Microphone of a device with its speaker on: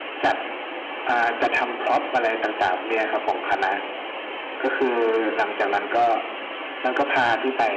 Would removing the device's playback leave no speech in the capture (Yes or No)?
Yes